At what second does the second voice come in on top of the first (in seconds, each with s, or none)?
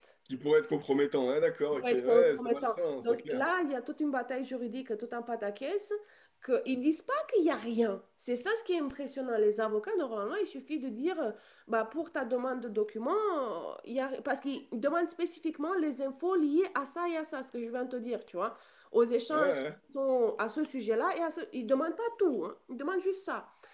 1.7 s